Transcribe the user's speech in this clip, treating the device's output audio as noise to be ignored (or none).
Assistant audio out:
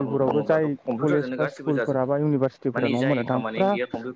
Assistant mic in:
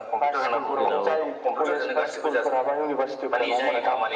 जेराव